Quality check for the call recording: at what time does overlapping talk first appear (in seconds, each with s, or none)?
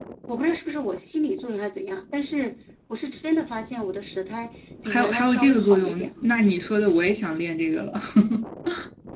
4.8 s